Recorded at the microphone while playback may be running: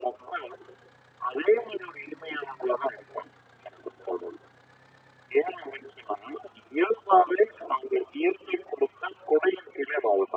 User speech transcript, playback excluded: none

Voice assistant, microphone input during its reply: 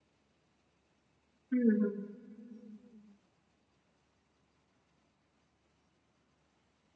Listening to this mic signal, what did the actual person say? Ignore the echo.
हुँ, हुँ।

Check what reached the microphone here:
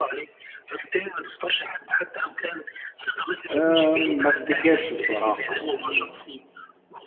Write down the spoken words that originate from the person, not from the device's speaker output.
آمم، ما أفتكرش بصراحة يعني

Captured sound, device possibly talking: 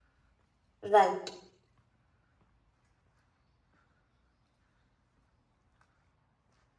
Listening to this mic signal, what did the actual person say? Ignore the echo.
राइट।

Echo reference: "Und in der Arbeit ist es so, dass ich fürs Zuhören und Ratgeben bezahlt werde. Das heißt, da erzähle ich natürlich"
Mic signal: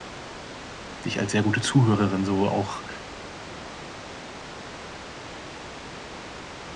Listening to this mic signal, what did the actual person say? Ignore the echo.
dich als sehr gute Zuhörerin so auch

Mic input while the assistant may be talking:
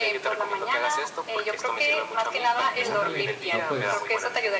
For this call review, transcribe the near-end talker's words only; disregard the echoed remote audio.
Órale. No, pues

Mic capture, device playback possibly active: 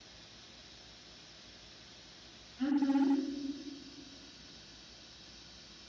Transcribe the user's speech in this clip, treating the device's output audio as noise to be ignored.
Uhum,

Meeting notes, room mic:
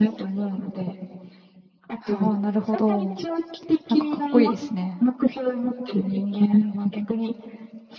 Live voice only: はあ、なるほど。なんかかっこいいですね。

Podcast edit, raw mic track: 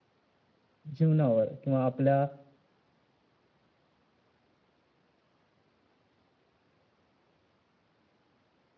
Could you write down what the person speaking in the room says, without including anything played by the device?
जीवनावर किंवा आपल्या

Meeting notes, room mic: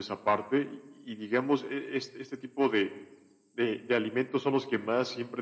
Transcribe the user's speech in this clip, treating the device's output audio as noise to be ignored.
none

